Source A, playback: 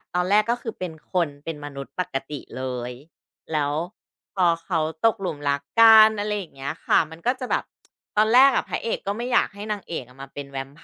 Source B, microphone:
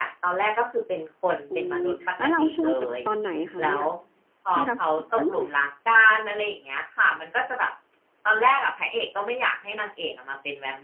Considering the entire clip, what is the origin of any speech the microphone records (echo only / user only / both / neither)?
both